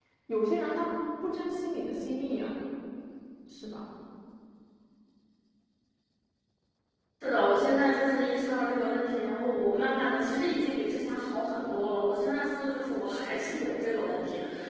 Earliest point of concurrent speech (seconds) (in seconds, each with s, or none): none